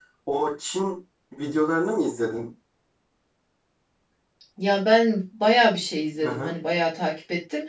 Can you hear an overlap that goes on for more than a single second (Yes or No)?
No